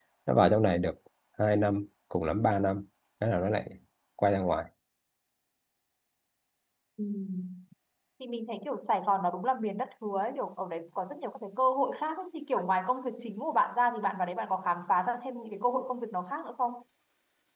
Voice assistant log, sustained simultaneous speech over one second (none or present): none